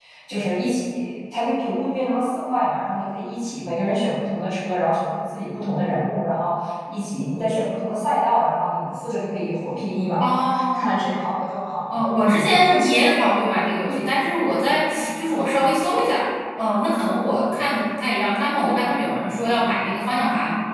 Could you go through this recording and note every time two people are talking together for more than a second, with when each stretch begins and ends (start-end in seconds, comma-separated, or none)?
11.9-13.2